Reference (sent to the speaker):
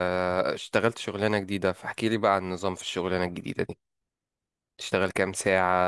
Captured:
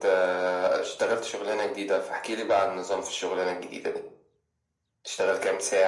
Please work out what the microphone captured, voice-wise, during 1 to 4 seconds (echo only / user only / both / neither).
echo only